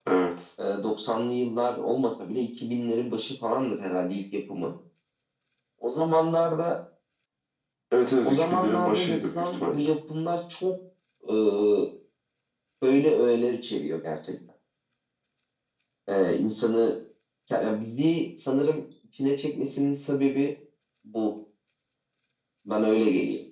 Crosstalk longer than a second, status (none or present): present